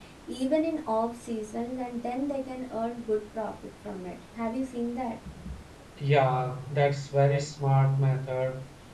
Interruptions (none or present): none